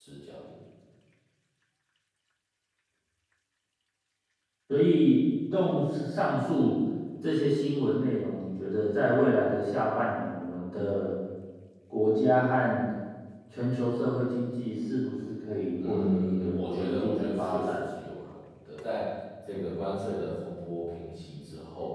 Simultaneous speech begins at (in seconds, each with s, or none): 15.8 s